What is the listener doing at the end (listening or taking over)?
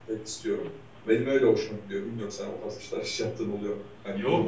taking over